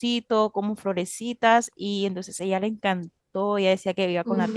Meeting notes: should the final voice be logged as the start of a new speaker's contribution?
No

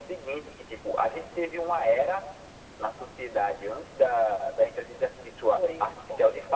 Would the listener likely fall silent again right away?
Yes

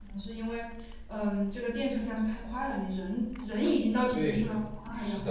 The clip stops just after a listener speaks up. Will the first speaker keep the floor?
No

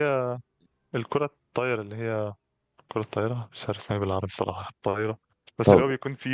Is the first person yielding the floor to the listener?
No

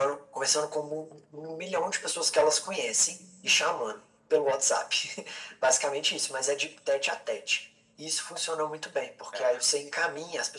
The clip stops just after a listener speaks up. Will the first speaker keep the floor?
Yes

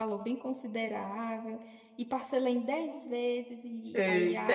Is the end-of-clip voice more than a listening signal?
Yes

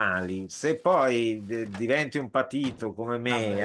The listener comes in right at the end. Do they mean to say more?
No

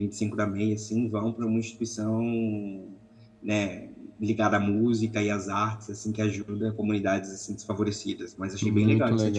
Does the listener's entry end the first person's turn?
Yes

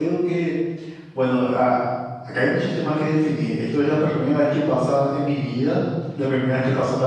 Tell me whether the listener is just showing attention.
Yes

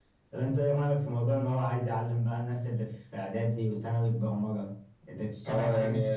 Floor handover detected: Yes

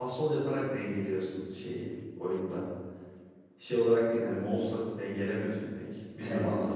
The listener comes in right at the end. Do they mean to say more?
Yes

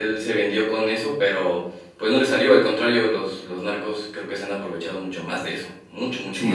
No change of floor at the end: No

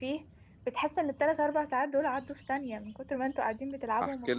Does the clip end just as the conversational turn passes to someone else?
Yes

